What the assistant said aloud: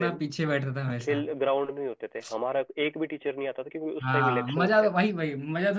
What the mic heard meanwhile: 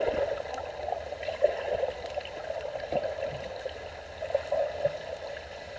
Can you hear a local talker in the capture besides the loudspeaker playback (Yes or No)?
No